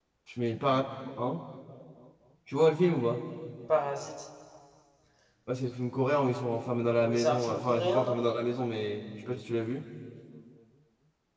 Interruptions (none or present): present